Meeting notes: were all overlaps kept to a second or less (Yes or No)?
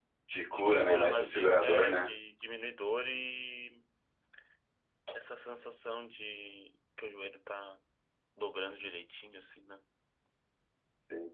No